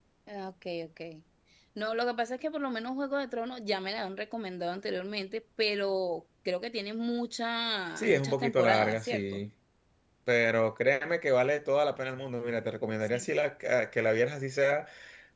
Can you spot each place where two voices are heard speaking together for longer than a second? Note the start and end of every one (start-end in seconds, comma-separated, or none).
8.0-9.4